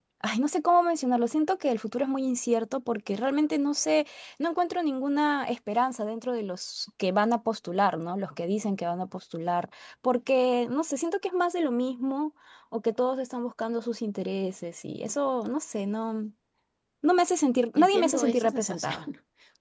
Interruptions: present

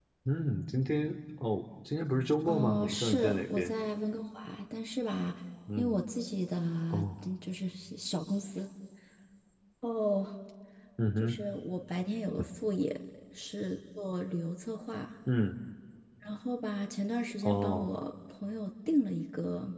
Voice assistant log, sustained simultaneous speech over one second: present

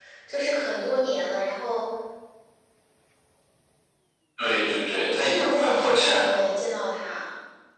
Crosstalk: present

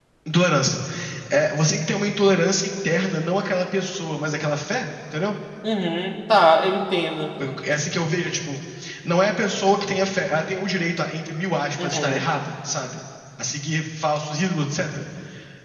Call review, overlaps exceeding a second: none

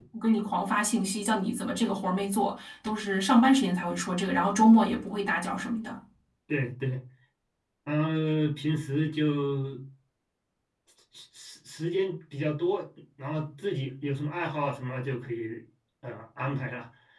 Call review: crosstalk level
none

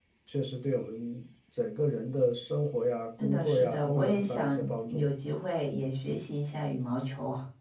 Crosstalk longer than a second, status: present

